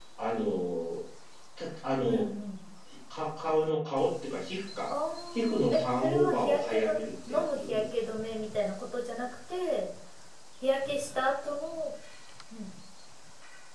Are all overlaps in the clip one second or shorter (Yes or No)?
No